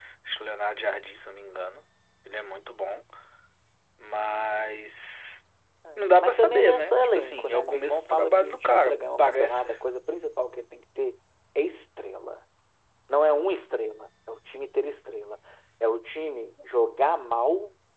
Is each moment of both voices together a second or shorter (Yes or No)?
No